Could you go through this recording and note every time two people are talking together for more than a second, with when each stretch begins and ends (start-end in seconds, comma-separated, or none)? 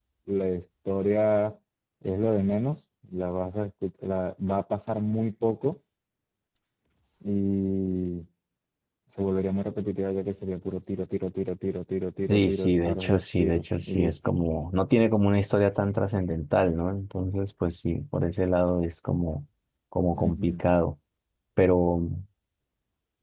12.3-14.3